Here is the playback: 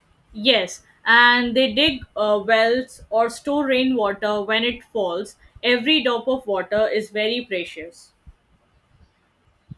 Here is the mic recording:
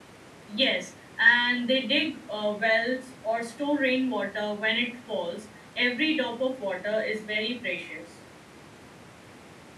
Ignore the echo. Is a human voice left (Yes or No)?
No